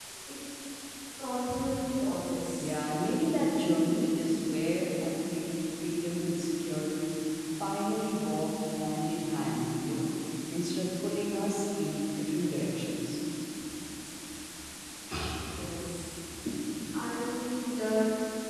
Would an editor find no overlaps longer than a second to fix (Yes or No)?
Yes